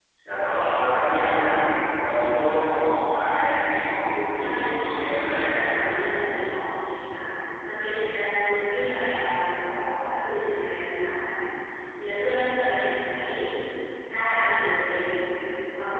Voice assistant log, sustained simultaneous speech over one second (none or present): present